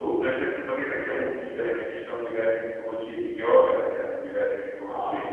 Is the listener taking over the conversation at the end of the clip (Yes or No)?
No